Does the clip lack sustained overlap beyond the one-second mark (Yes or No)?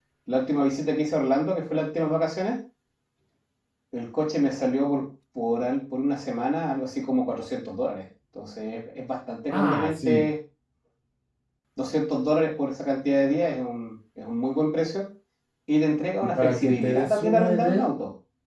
No